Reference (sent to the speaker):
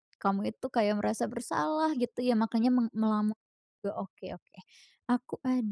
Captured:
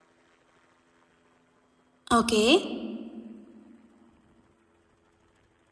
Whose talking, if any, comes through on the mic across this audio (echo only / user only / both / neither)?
user only